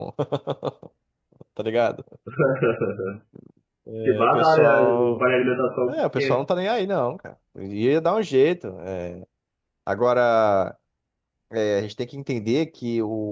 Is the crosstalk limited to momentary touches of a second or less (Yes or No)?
No